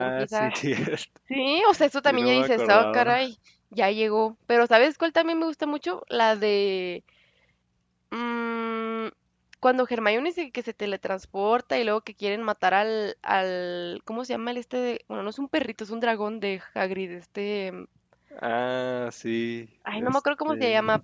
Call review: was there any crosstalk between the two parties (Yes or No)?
Yes